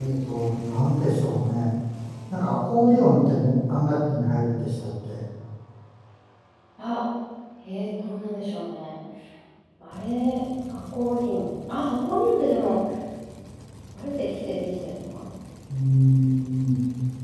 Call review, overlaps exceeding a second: none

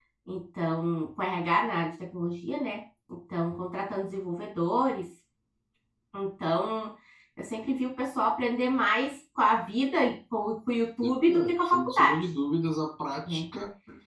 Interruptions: present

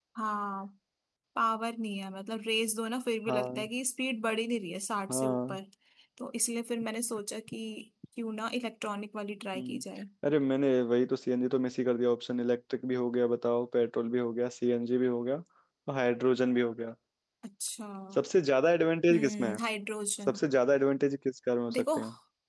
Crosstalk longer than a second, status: none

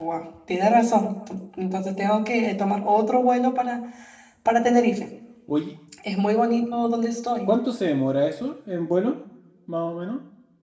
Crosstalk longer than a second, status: none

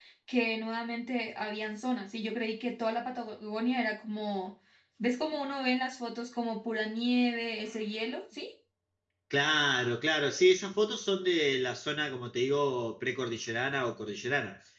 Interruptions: none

